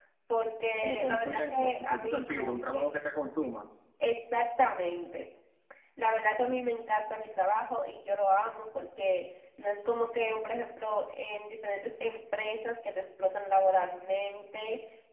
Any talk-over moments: Yes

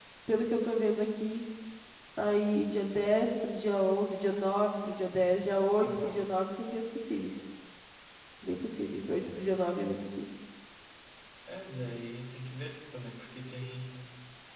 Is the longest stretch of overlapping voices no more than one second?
Yes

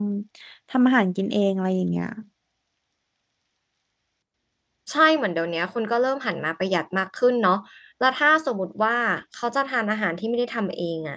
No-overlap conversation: Yes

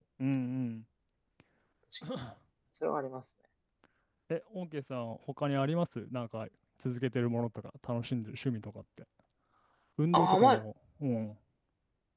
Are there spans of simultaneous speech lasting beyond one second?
No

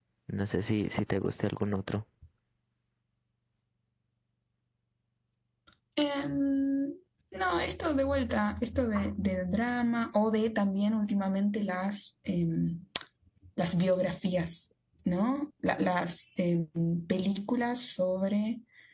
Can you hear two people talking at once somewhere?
No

